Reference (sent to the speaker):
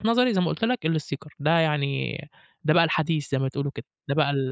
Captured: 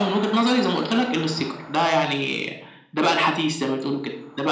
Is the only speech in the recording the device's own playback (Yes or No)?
Yes